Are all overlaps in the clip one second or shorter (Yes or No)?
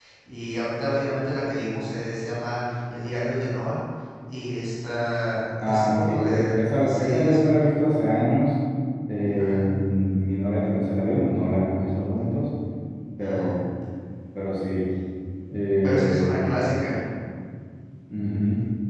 No